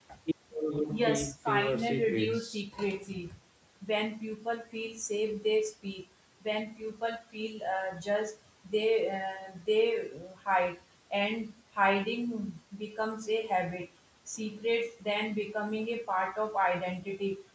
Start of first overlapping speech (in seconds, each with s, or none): 0.9 s